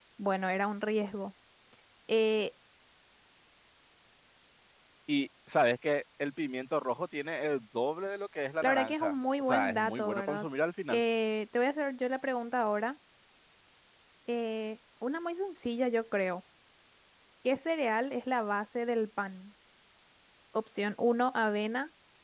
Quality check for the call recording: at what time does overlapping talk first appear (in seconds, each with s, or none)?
8.6 s